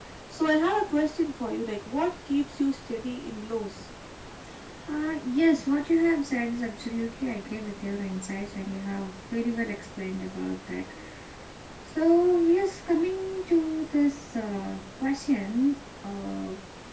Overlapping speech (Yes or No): No